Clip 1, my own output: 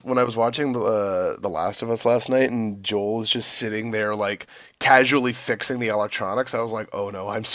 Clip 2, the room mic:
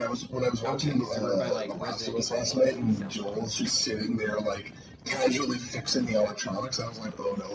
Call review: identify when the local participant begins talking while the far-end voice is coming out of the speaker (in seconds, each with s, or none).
0.6 s